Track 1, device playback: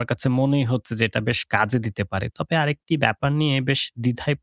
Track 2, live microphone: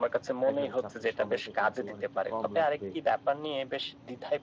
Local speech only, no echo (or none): দেখা যাচ্ছে আপনার সময়টা কিন্তু অনেকটা কম লাগবে।